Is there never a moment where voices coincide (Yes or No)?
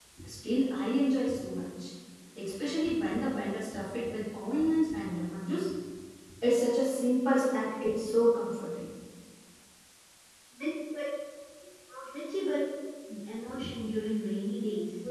Yes